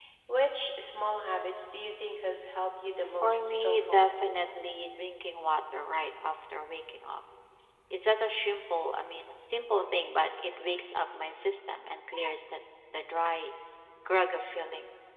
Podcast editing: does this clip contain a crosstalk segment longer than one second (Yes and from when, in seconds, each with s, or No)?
Yes, from 3.0 s